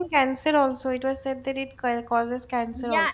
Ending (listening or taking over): taking over